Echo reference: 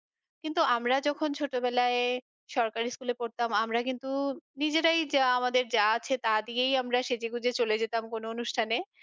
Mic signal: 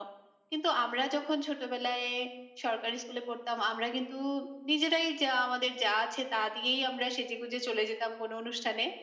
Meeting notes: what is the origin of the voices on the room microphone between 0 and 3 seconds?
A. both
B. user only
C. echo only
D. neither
C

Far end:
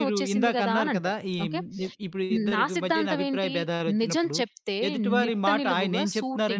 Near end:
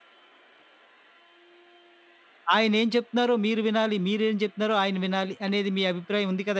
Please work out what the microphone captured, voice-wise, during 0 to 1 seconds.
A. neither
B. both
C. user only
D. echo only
A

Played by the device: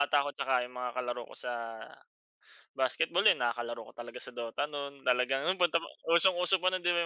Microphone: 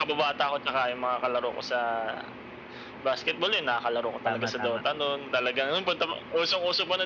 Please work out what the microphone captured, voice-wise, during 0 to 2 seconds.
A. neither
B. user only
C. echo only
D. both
C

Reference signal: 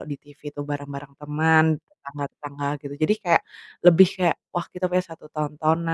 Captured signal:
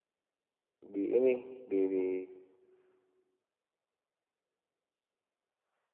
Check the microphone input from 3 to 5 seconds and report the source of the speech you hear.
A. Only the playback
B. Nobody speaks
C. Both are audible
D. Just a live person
B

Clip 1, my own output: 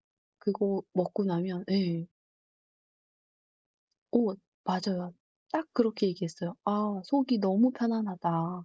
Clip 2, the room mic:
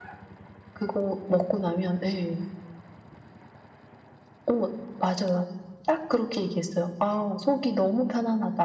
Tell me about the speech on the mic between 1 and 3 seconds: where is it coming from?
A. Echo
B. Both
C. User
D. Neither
A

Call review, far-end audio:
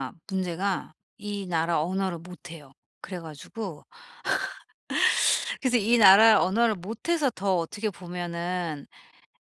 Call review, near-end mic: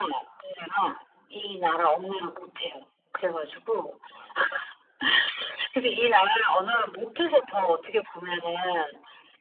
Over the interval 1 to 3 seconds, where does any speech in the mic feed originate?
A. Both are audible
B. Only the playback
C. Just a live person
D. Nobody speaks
B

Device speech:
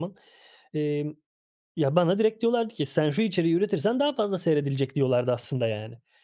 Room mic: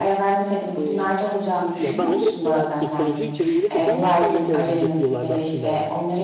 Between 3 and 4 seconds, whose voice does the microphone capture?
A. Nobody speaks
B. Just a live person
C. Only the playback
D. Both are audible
D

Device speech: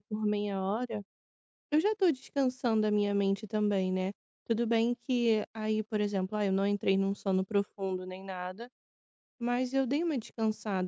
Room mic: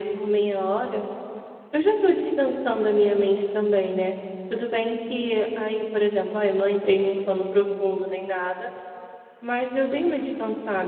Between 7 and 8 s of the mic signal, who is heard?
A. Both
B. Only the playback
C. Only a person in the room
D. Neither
B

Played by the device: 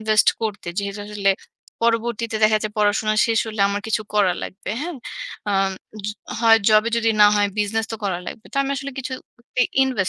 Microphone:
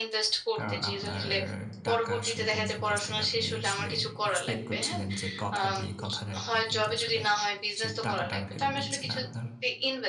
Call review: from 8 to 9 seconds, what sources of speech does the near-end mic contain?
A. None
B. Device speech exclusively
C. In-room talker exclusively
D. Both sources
D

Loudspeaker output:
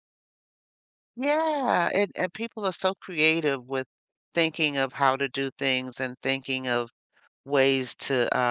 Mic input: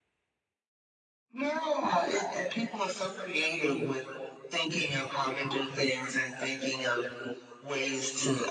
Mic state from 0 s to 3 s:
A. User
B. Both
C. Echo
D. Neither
C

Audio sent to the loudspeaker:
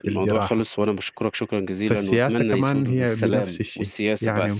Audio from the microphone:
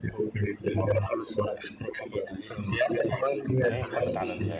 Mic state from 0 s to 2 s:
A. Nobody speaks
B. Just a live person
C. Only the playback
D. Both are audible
C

